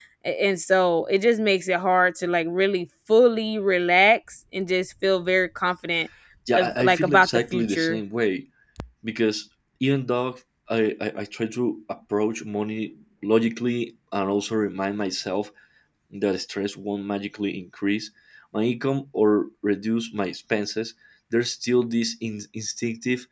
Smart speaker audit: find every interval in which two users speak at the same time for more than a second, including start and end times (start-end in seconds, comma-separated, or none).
6.5-8.0